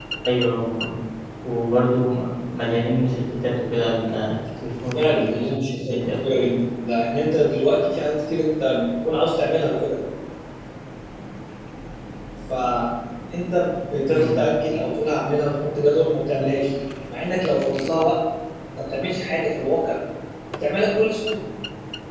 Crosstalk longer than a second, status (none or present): present